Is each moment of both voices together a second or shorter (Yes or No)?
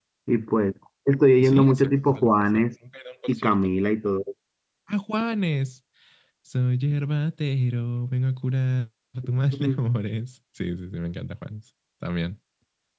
No